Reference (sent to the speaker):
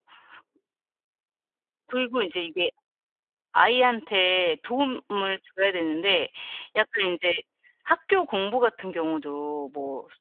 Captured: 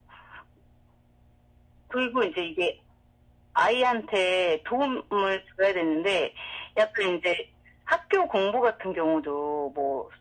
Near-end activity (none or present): none